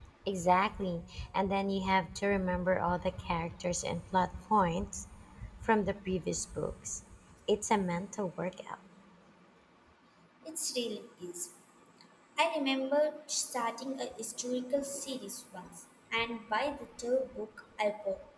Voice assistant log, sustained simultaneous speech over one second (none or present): none